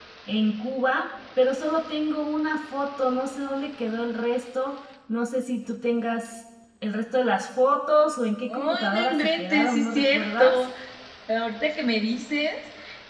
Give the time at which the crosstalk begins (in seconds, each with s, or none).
8.5 s